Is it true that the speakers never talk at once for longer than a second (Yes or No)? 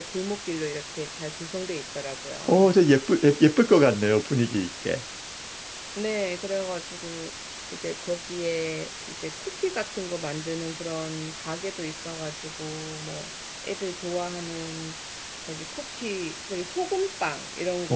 Yes